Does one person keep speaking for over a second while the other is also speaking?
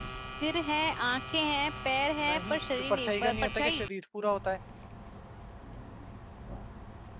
Yes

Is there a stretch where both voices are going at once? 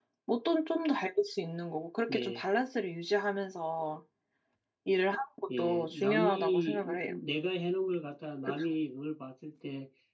Yes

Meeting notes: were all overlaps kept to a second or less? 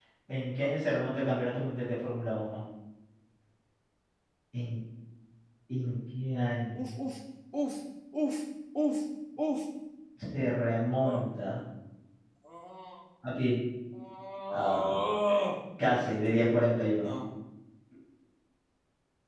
Yes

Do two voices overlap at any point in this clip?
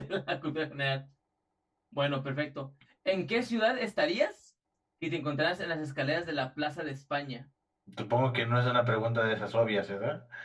No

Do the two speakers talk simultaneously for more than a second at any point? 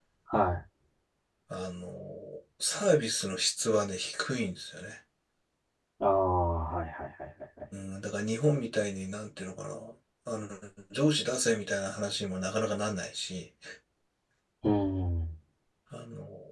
No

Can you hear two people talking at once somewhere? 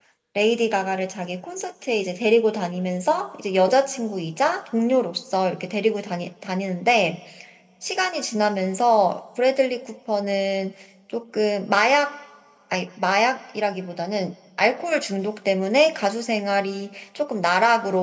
No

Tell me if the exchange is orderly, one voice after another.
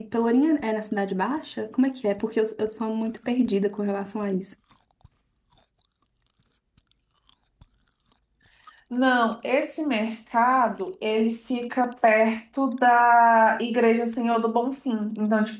Yes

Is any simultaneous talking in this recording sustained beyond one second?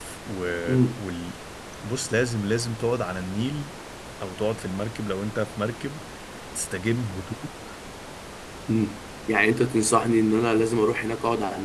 No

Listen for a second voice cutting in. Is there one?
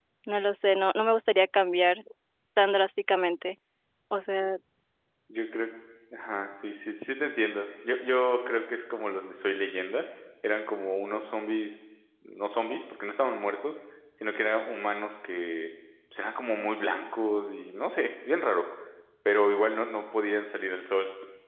No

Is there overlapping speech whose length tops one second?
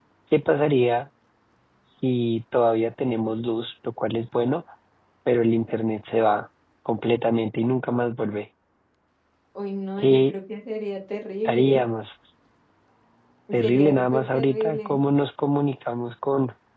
Yes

